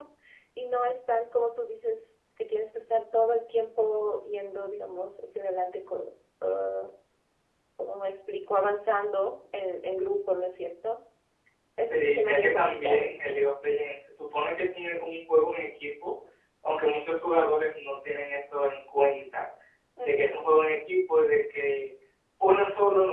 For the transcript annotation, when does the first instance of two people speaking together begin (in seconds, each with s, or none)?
11.9 s